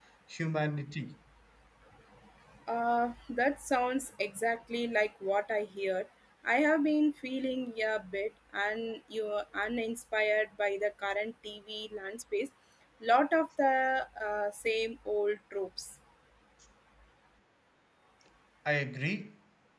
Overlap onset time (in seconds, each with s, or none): none